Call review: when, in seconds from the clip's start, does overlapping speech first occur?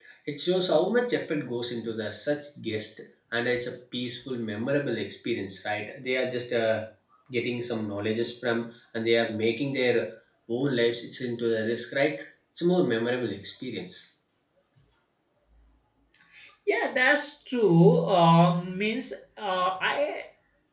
none

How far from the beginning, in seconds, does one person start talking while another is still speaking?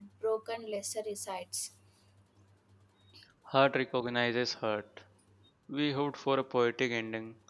none

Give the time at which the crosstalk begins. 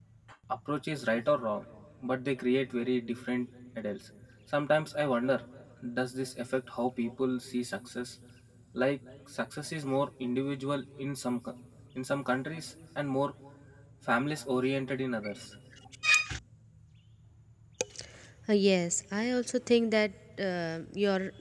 none

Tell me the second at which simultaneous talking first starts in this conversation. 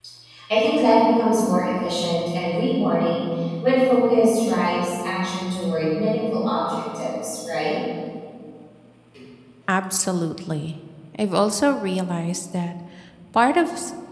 none

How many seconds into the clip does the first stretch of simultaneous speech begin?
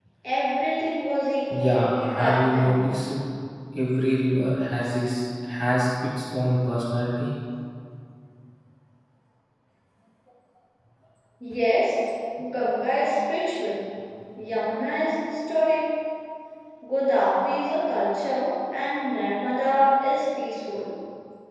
2 s

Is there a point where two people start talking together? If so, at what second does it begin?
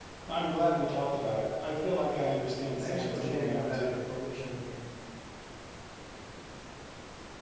3 s

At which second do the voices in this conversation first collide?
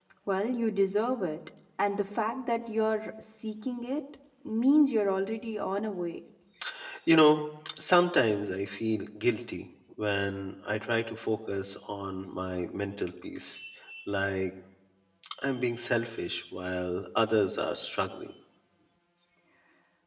none

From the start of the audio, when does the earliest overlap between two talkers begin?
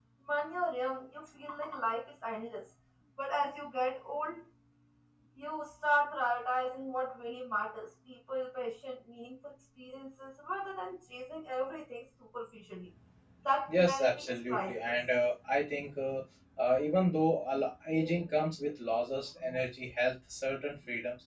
14 s

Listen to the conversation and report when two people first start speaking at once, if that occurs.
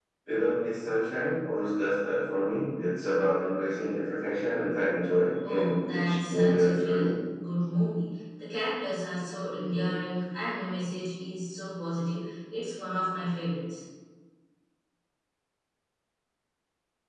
5 s

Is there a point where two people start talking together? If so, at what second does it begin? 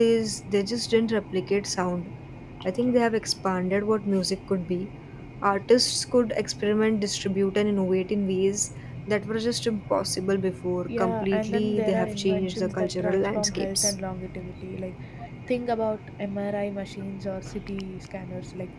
11 s

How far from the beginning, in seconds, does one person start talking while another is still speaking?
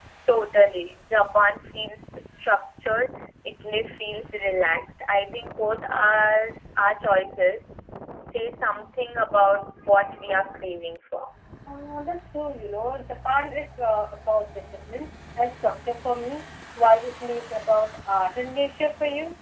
none

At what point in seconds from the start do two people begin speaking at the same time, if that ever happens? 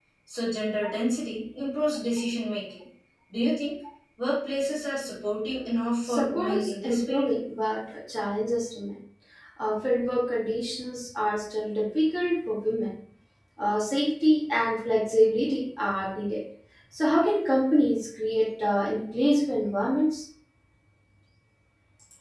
6 s

